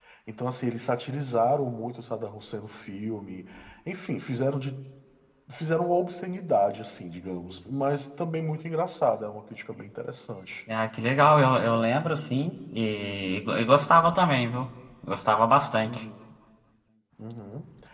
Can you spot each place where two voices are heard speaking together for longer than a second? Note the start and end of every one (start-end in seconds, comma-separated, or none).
none